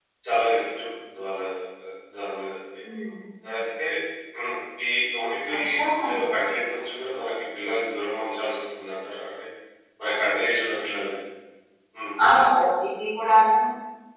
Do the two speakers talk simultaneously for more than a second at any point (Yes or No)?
No